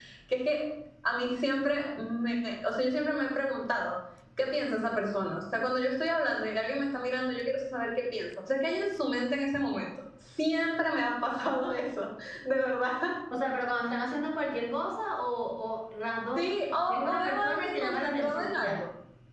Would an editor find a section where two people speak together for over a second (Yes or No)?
Yes